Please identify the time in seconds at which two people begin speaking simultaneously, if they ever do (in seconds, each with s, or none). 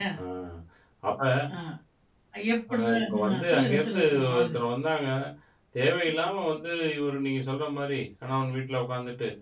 2.7 s